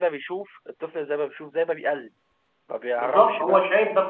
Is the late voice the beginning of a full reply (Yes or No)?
Yes